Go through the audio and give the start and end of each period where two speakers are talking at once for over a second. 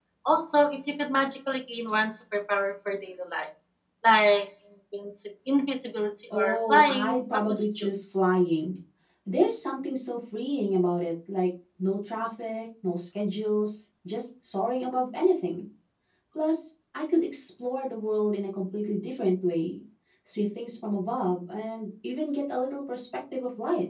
6.3-7.9

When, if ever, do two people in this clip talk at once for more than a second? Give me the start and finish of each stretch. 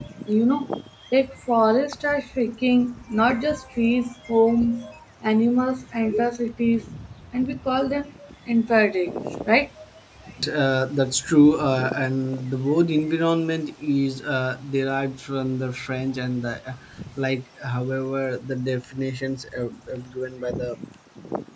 none

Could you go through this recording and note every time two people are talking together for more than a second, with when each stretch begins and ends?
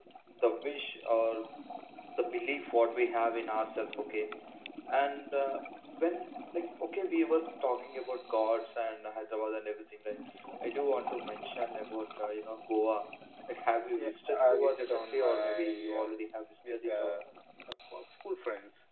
13.9-16.2

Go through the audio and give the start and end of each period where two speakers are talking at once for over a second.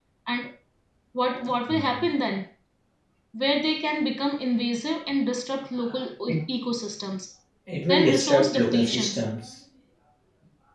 7.9-9.2

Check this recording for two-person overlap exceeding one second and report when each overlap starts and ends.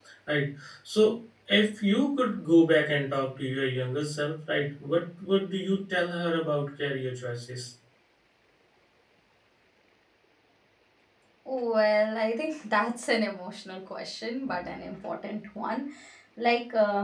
none

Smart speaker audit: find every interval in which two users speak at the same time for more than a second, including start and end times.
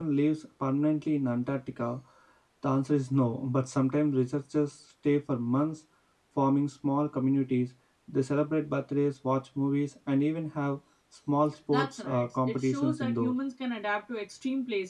11.7-13.3

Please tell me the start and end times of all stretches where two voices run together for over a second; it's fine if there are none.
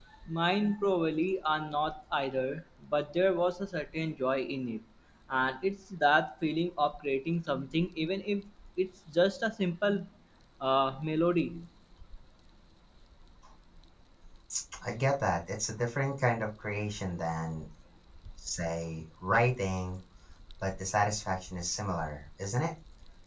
none

